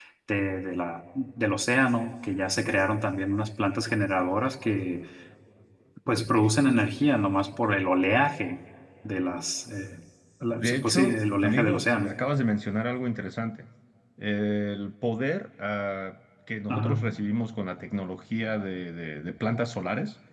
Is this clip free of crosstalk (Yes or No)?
No